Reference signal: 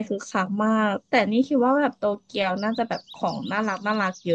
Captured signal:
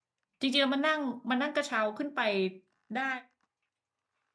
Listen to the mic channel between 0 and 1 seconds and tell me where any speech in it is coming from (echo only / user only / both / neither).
user only